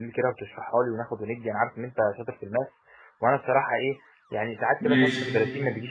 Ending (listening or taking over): listening